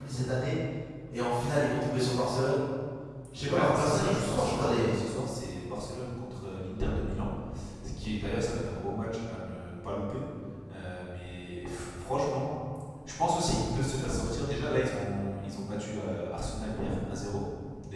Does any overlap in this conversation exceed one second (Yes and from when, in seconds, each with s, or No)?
Yes, from 3.5 s